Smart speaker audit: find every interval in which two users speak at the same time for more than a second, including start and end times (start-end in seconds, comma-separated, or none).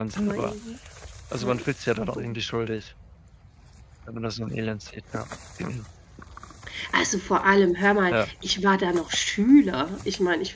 none